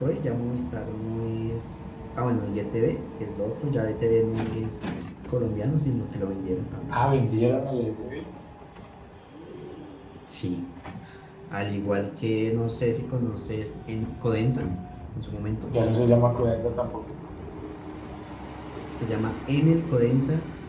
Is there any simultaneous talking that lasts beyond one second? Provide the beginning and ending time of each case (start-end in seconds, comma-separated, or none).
none